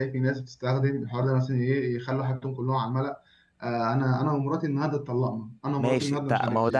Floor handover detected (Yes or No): Yes